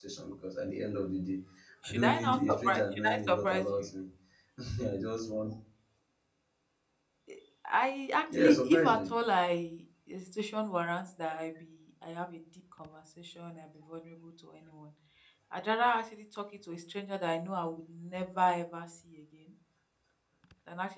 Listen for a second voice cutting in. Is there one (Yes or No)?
Yes